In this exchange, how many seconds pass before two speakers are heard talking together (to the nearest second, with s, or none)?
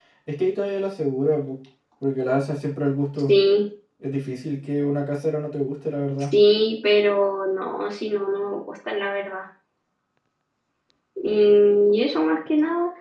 none